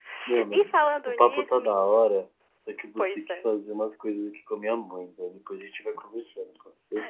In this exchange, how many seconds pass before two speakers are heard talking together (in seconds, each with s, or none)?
0.5 s